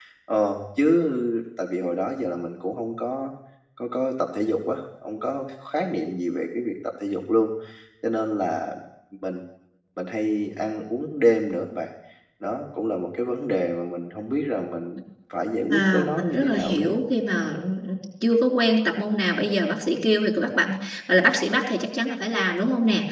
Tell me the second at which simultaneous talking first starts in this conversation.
15.7 s

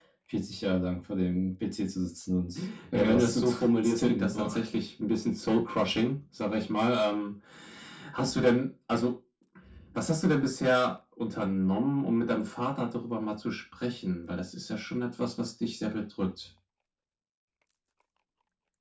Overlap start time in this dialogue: 2.9 s

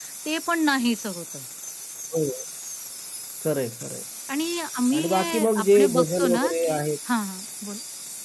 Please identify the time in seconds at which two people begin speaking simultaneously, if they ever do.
5.0 s

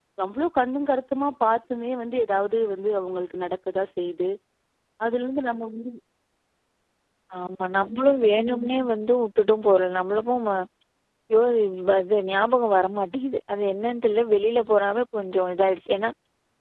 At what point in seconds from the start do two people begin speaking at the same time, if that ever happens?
none

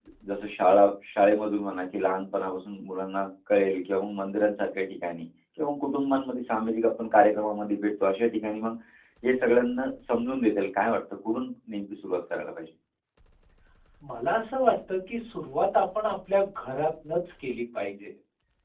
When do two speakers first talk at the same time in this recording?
none

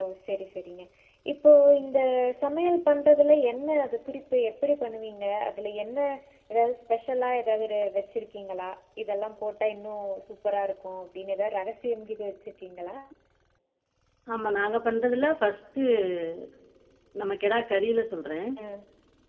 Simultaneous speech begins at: none

